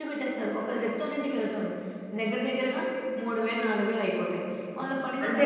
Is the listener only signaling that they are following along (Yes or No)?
Yes